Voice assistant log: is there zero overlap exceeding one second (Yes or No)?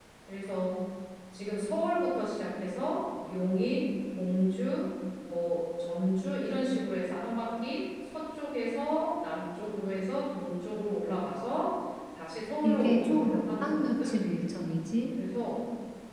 No